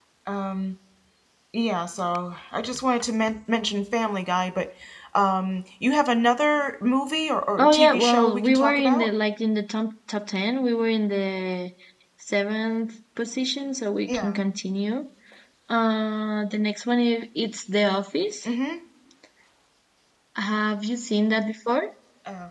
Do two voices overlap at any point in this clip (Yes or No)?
Yes